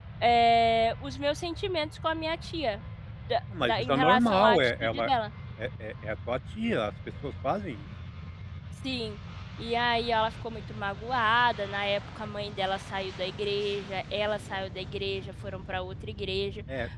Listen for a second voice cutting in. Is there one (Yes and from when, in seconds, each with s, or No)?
Yes, from 3.6 s